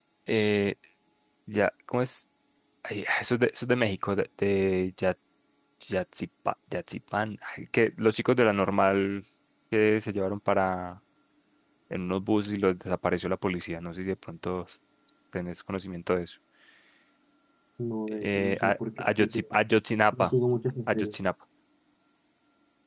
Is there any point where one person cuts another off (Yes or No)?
Yes